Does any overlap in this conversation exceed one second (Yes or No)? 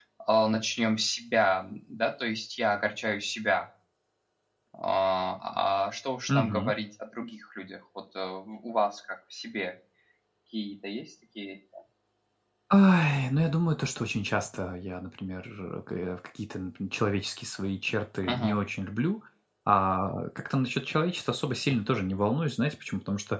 No